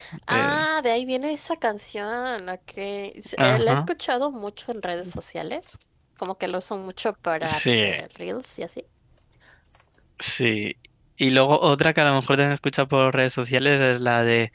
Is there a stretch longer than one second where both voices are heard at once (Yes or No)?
No